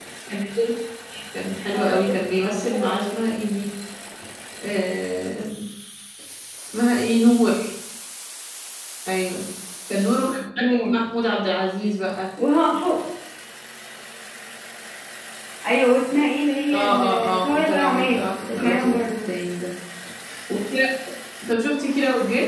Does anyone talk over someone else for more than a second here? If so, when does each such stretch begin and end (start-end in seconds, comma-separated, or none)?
1.7-3.1, 16.7-19.1